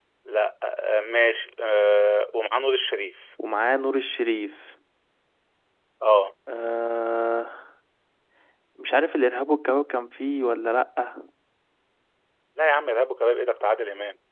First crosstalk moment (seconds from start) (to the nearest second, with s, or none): none